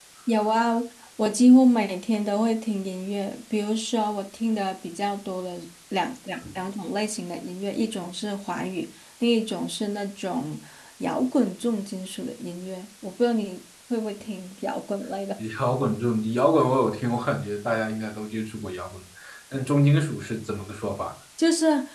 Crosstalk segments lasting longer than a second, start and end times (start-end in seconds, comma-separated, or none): none